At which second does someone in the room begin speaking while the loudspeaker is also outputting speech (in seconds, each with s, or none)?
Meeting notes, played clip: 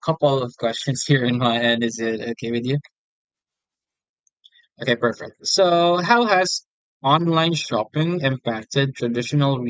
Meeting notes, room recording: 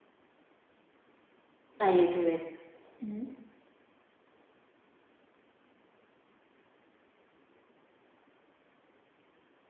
1.8 s